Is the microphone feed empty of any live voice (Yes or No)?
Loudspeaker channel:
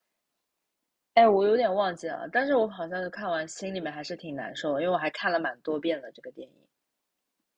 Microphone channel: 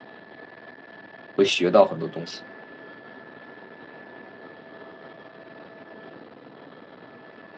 No